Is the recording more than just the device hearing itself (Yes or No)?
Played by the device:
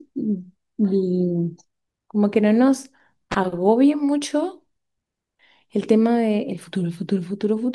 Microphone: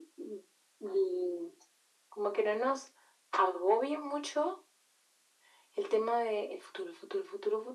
No